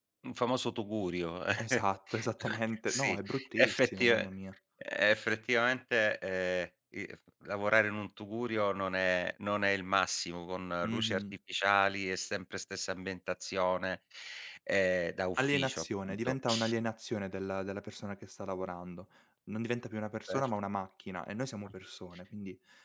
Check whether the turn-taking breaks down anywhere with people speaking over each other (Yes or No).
Yes